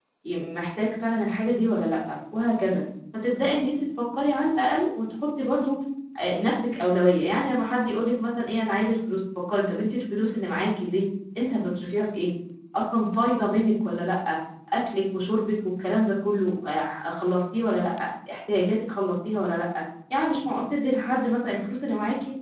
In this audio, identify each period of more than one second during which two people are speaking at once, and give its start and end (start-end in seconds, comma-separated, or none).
none